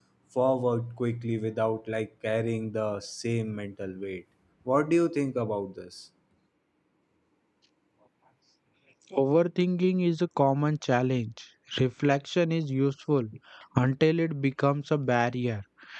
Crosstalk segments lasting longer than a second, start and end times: none

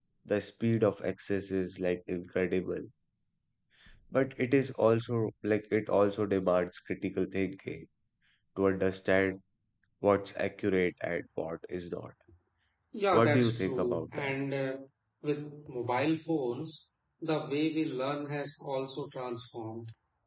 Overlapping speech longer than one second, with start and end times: 13.1-14.3

